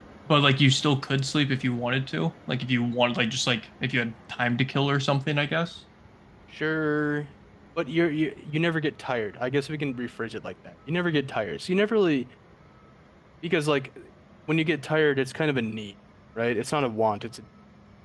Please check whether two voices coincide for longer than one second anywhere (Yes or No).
No